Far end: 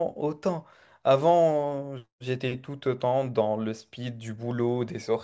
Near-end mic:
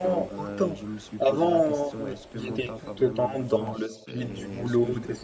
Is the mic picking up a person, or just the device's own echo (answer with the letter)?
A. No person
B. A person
B